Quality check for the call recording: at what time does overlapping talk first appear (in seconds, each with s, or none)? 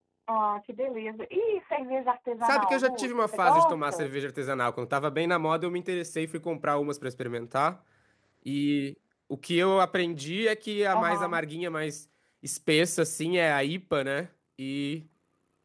2.4 s